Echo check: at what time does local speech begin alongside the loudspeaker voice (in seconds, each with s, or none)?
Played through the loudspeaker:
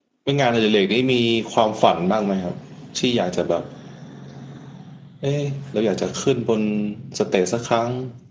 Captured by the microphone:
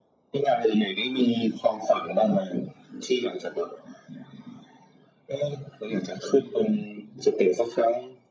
none